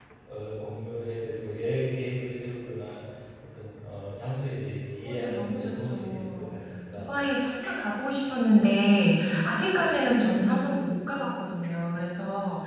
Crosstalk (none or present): present